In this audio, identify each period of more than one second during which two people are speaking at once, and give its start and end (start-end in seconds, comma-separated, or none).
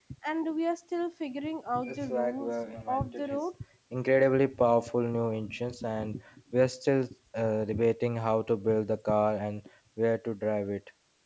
1.9-3.4